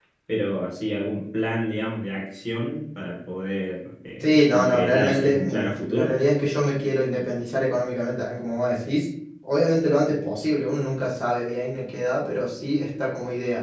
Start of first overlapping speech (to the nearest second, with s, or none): 4 s